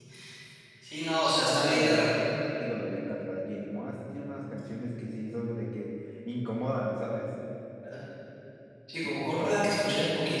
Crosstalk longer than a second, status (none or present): present